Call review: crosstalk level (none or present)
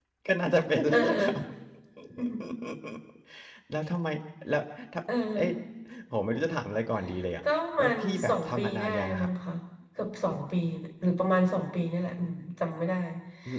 present